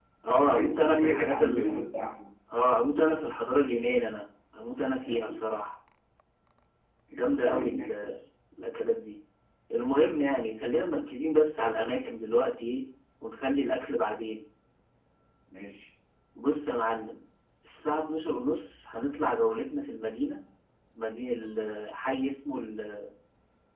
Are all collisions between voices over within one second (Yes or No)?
No